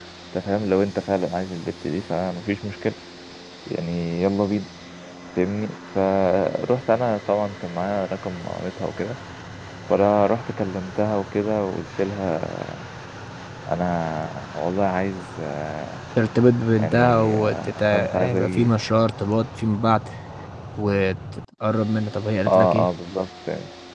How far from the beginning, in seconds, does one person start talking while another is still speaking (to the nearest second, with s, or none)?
17 s